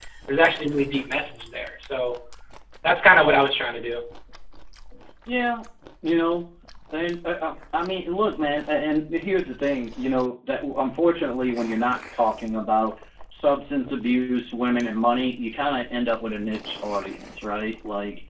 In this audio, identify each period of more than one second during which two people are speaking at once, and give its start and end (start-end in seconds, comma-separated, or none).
none